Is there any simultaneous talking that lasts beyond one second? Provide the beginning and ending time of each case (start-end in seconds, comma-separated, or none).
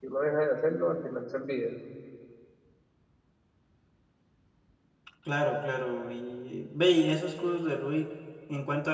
none